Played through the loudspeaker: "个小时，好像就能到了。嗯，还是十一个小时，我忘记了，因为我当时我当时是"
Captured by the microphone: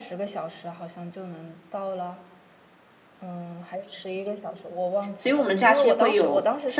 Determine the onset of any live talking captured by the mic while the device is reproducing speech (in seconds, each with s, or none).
5.2 s